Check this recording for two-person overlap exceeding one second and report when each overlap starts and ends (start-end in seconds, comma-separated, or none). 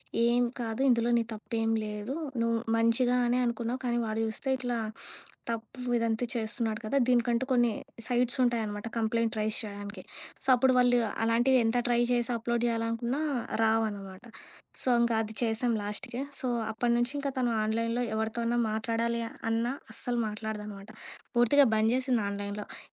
none